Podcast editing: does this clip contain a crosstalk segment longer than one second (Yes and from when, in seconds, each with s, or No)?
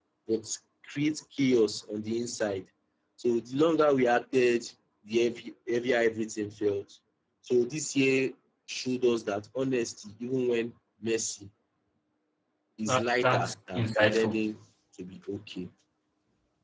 Yes, from 12.9 s